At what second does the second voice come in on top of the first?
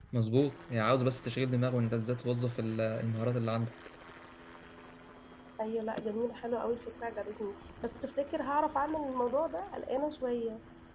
none

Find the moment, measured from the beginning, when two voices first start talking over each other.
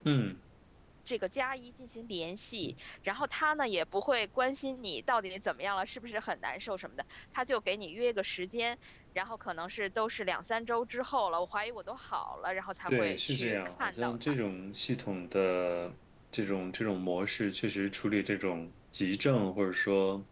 12.9 s

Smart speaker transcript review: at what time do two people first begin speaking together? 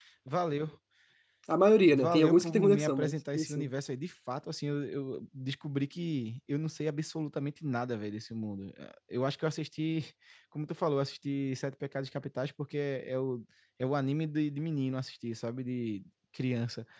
1.9 s

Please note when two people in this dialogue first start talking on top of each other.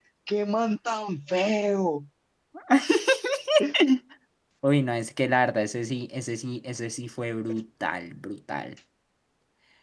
none

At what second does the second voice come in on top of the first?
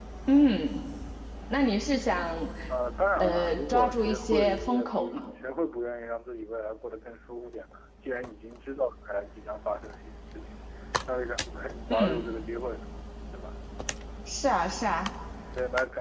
3.2 s

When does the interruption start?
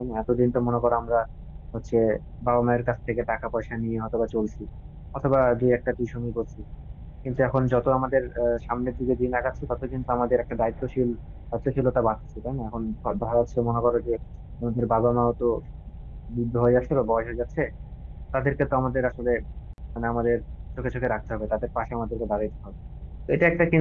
none

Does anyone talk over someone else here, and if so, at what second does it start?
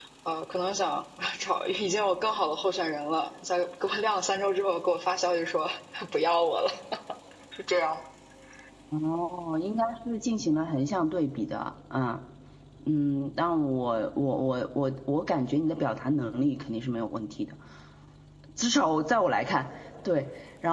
none

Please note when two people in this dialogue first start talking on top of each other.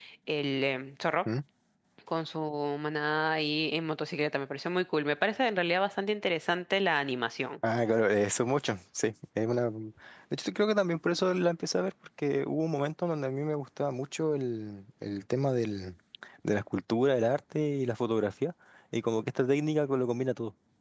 none

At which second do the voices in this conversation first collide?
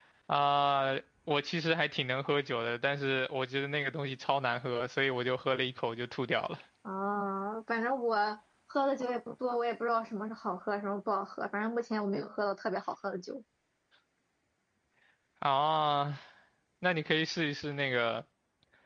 none

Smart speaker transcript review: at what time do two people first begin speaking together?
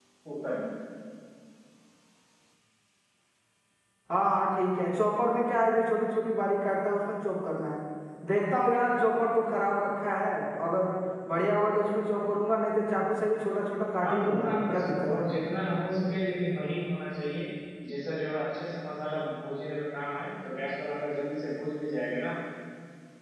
14.0 s

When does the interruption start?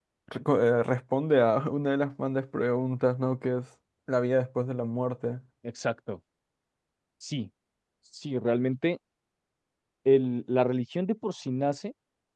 none

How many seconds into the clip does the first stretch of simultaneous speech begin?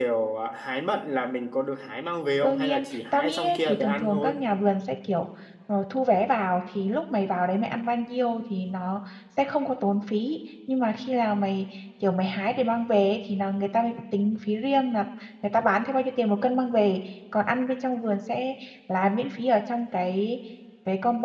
2.4 s

